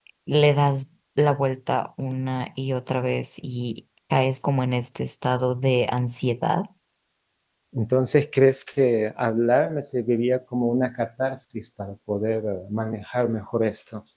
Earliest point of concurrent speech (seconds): none

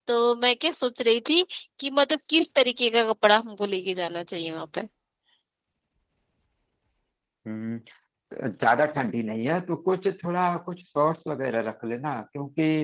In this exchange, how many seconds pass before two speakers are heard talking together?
none

